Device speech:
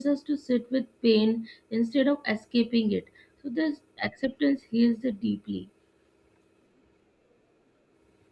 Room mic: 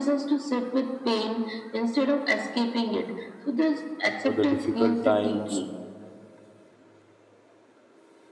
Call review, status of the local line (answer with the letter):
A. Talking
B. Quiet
A